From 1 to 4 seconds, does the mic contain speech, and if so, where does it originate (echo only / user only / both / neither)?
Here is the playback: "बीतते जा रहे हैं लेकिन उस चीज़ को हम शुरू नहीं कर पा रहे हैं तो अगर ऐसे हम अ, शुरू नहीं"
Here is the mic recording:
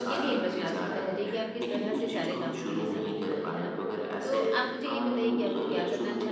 both